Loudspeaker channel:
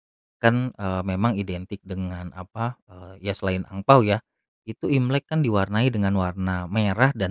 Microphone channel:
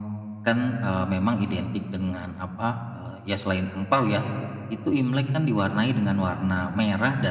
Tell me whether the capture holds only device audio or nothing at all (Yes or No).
Yes